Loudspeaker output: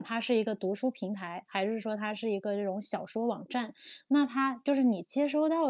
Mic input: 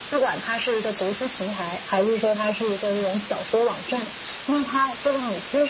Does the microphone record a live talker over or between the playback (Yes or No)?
No